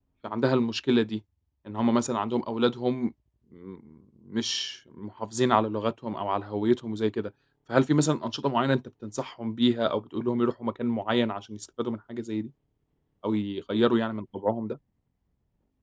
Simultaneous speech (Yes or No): No